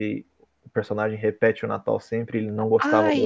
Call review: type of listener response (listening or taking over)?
taking over